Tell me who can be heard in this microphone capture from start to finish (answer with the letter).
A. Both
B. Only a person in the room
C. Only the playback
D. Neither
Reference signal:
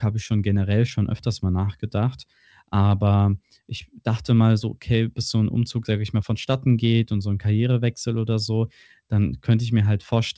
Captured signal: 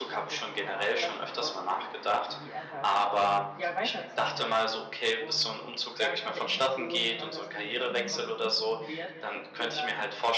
A